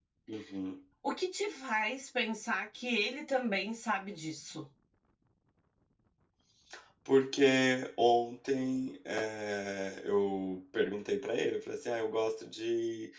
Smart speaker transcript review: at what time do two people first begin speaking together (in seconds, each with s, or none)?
none